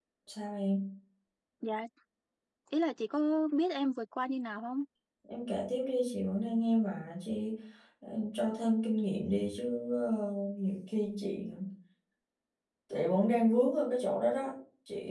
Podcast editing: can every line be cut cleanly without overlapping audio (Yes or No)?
Yes